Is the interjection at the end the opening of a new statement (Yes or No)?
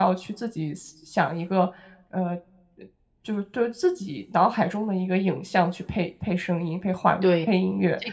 Yes